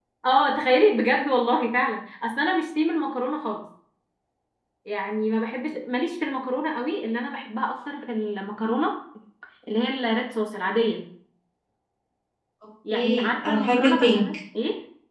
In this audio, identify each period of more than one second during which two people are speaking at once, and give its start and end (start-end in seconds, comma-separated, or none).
12.9-14.2